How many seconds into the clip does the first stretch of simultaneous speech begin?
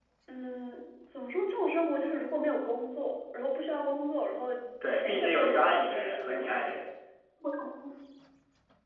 4.9 s

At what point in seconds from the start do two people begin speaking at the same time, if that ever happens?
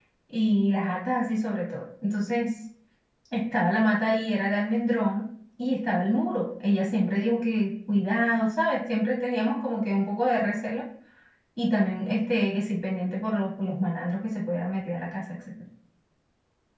none

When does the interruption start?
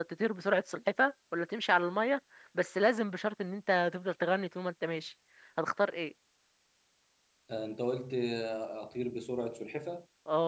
none

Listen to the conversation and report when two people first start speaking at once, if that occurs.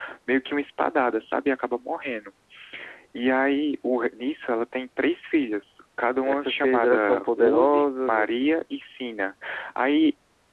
6.2 s

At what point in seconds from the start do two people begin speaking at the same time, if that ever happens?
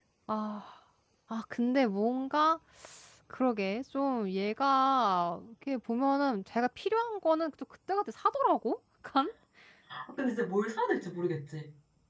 none

